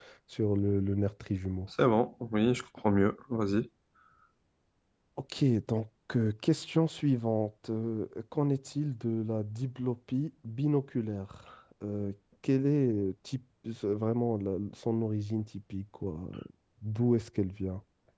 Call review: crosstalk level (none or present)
none